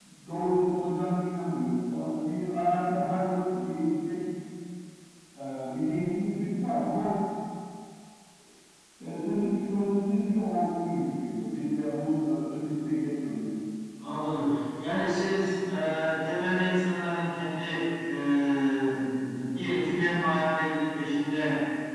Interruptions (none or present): none